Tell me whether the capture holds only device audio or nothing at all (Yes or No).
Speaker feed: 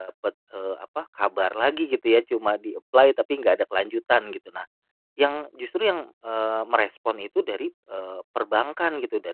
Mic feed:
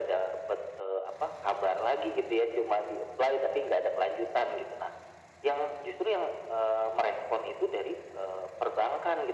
Yes